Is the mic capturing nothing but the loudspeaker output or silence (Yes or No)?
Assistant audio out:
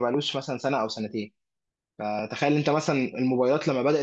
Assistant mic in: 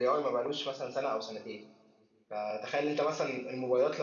Yes